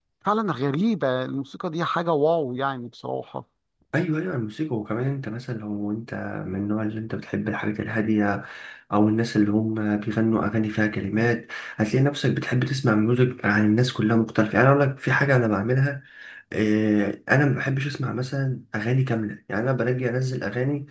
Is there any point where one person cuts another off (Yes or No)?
No